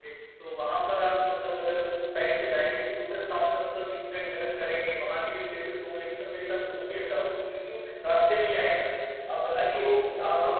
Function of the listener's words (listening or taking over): listening